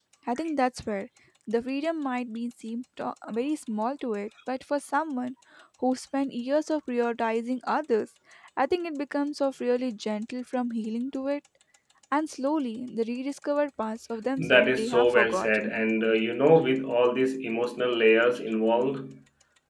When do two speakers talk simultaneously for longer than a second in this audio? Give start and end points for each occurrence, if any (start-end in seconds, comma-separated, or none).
14.4-15.7